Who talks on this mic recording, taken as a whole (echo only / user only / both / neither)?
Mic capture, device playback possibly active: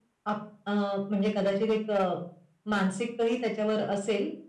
echo only